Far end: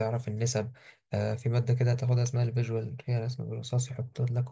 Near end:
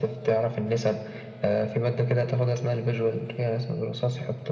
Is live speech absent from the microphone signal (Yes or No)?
Yes